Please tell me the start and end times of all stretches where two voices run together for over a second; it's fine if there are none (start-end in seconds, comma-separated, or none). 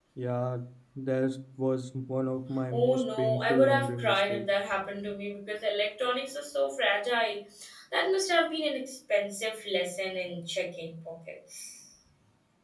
2.7-4.4